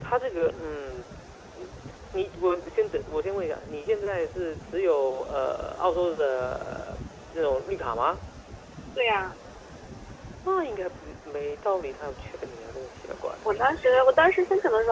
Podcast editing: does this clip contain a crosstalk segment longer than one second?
No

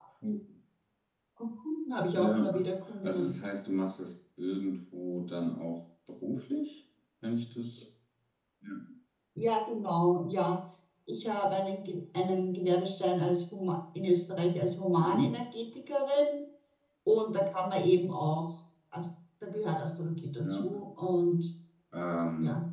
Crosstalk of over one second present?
Yes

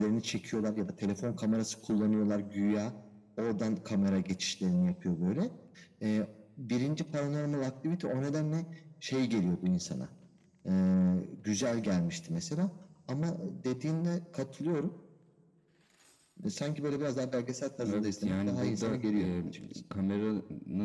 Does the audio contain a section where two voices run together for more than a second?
Yes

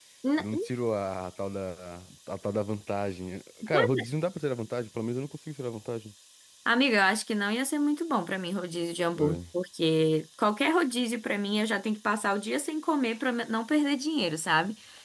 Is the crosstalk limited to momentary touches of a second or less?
Yes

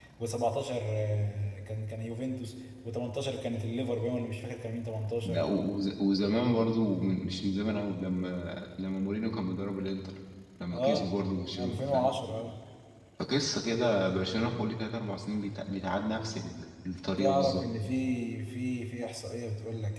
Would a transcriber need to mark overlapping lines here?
Yes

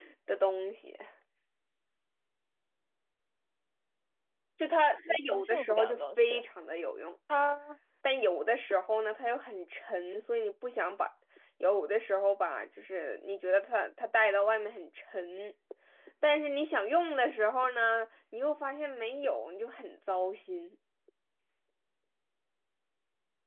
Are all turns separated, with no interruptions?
No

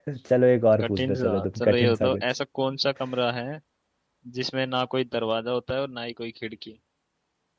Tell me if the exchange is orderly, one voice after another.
No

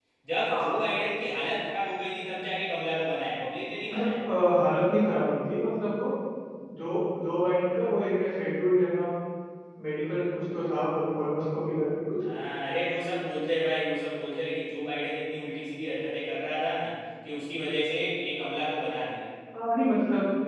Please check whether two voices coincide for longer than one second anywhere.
No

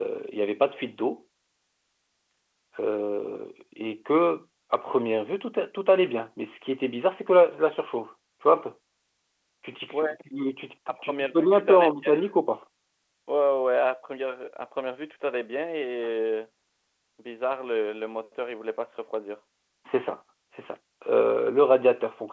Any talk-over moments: Yes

